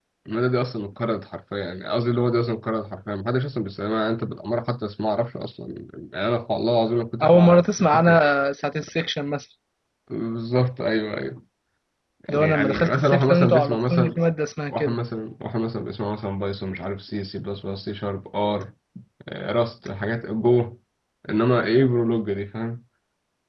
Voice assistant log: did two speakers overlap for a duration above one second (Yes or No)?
Yes